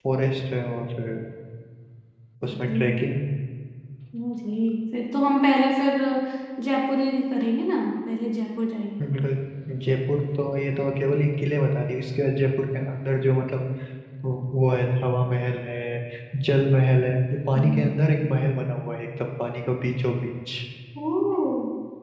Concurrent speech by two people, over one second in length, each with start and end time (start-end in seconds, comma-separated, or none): none